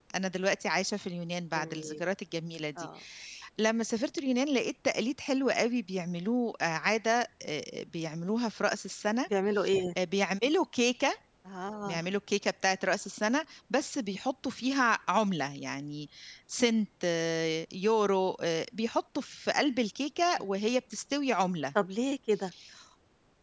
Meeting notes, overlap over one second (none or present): none